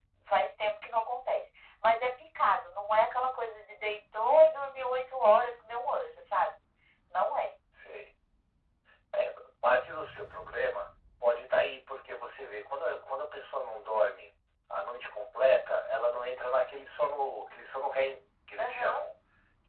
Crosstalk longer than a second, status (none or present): none